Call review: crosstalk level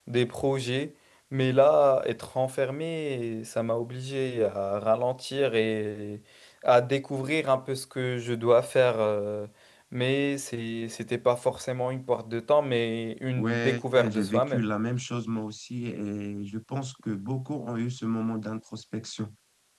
present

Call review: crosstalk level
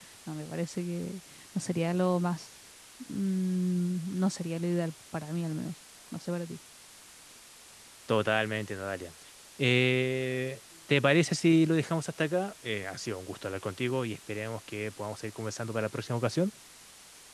none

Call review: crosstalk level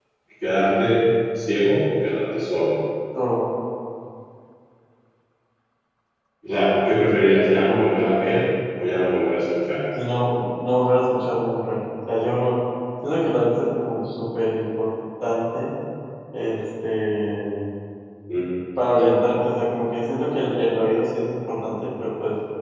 none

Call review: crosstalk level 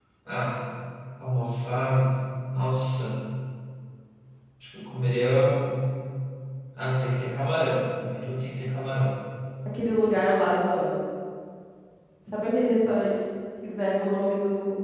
none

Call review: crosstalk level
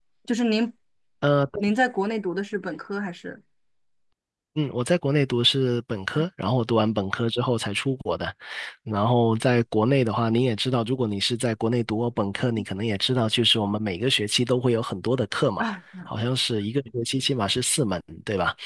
none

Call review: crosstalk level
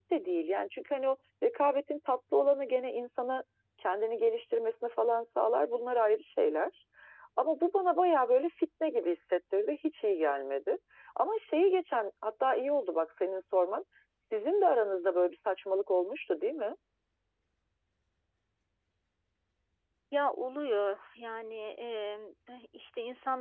none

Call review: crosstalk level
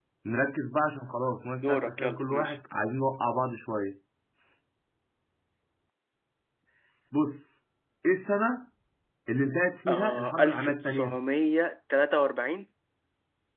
present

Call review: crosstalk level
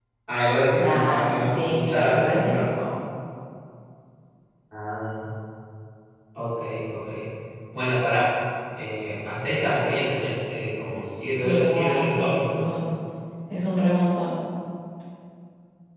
present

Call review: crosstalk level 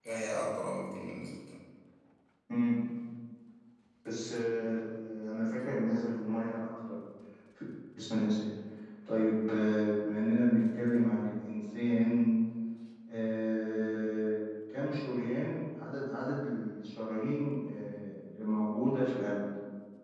none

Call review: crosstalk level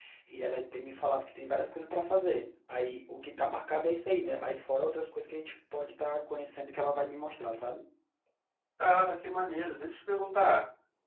none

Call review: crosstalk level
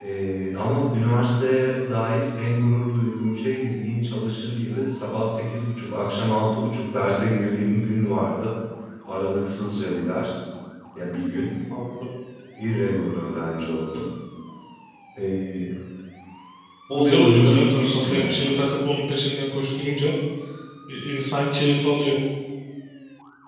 present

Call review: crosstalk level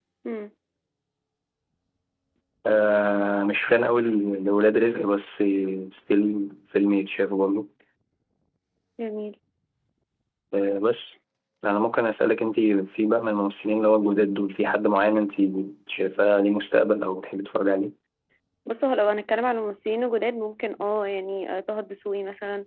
none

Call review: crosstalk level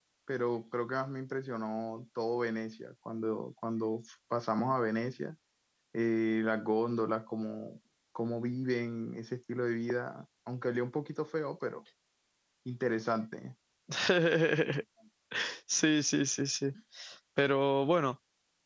none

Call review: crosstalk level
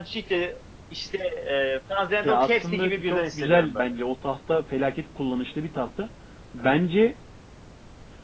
present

